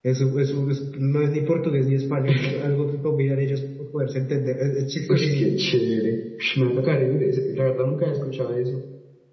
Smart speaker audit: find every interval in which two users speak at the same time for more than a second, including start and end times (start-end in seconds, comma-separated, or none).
none